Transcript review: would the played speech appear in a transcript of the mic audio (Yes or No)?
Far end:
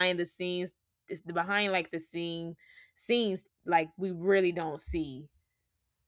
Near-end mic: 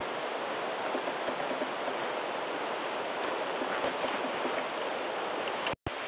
No